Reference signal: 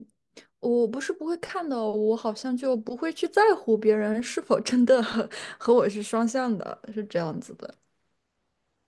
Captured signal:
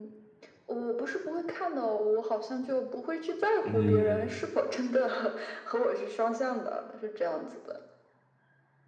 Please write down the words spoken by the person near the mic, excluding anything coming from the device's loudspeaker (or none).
嗯，